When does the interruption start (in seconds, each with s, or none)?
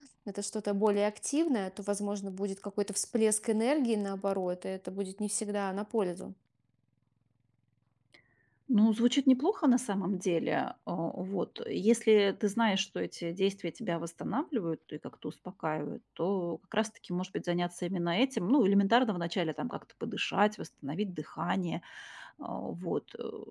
none